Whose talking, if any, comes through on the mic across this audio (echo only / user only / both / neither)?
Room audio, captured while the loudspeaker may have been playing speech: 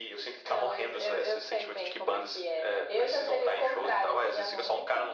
echo only